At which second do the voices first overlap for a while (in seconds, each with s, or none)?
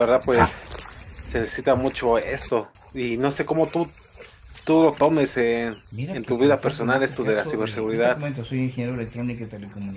5.9 s